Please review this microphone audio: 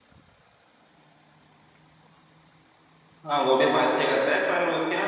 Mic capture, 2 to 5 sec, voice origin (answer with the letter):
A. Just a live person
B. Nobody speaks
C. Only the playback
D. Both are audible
A